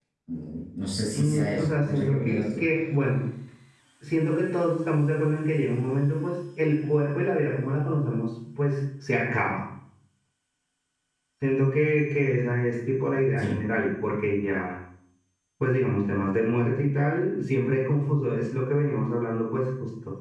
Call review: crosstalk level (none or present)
present